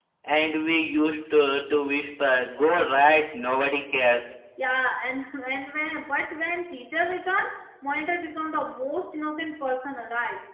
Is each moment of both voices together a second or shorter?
Yes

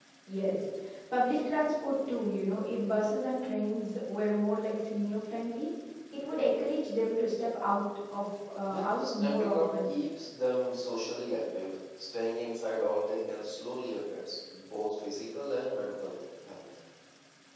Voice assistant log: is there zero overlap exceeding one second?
No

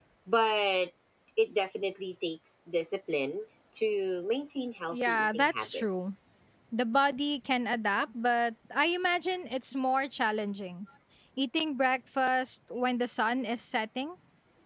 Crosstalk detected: Yes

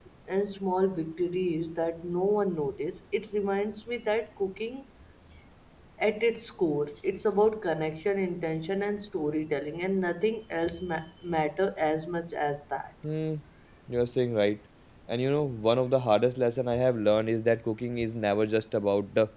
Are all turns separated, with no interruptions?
Yes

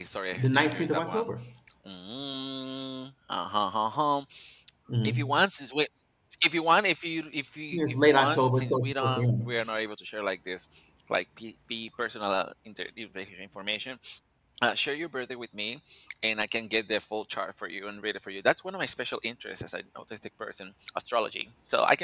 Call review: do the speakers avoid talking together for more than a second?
No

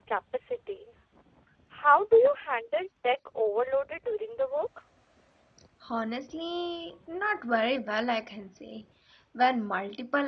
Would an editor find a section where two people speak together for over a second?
No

